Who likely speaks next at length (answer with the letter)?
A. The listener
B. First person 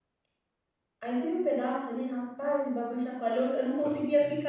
B